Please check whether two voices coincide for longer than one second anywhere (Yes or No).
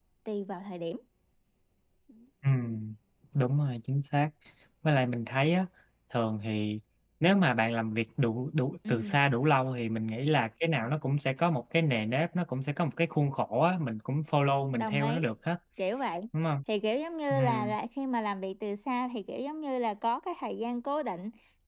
No